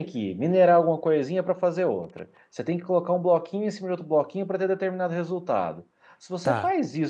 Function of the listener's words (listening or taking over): listening